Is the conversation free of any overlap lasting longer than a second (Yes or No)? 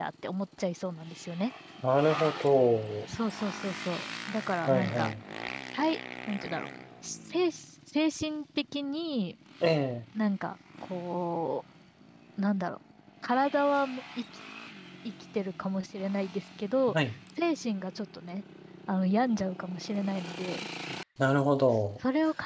Yes